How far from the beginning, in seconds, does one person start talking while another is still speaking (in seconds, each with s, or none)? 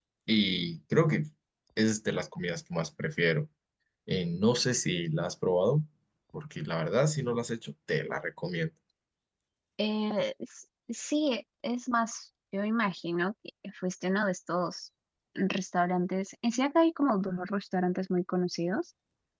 none